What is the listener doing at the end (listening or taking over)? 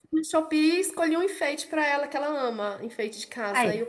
listening